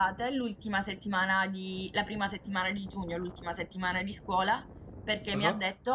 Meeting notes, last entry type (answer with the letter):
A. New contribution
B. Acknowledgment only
B